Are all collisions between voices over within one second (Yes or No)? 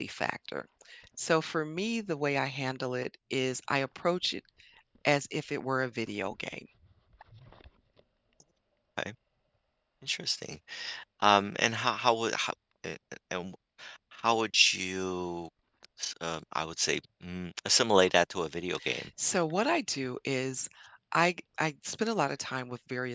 Yes